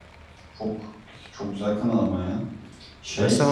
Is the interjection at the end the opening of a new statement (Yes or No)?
Yes